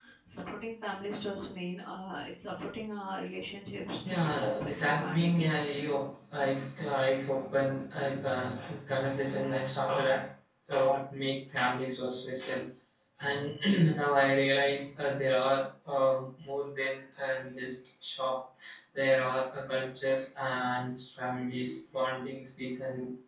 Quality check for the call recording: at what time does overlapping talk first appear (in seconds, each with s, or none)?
4.0 s